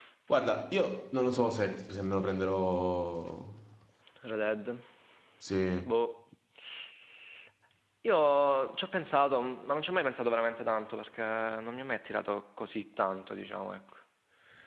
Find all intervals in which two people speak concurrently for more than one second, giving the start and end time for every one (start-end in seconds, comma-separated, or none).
none